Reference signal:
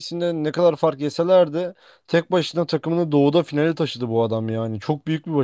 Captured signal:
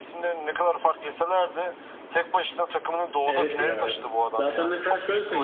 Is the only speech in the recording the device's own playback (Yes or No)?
No